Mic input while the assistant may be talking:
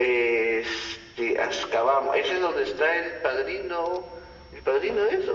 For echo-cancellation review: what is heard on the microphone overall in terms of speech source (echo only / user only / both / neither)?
echo only